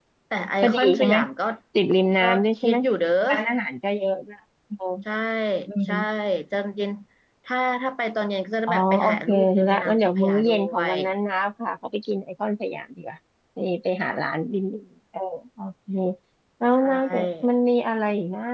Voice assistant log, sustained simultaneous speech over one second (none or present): present